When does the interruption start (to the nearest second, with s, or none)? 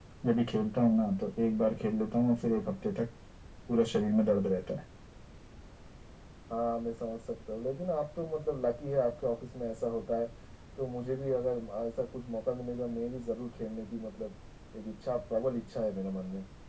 none